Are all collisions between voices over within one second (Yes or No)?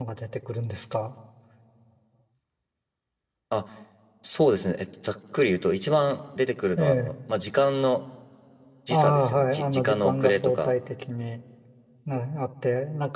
No